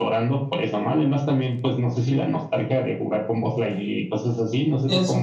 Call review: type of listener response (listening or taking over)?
taking over